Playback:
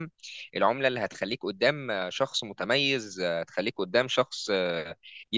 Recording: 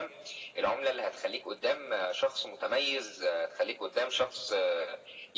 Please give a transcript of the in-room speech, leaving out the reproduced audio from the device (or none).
none